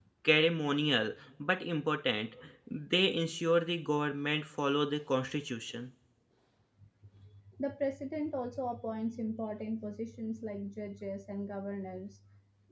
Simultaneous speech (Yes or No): No